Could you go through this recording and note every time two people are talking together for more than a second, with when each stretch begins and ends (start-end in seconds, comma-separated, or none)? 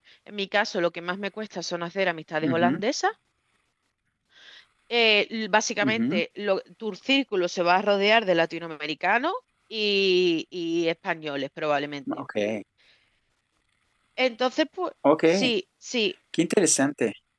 none